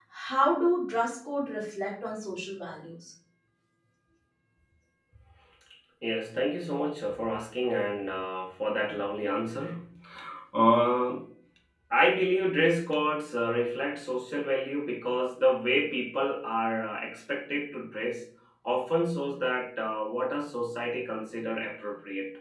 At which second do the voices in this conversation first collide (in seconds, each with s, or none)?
none